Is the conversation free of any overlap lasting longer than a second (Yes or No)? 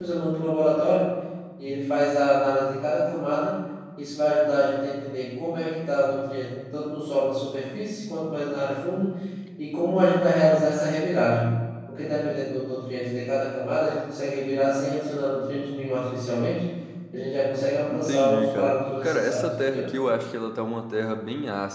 No